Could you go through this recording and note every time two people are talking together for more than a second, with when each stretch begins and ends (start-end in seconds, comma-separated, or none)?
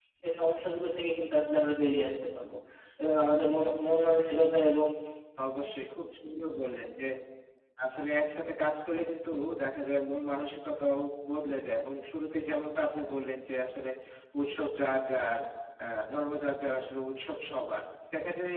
none